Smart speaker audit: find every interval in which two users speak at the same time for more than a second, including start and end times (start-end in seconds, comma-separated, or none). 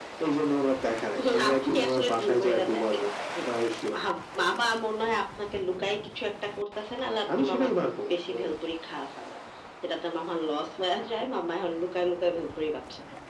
1.2-3.0